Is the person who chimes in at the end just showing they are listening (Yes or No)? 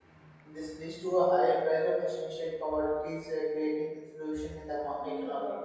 Yes